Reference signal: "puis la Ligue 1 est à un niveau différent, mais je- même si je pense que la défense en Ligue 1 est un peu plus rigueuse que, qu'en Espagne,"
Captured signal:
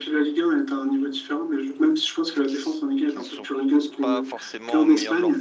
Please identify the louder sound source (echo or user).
echo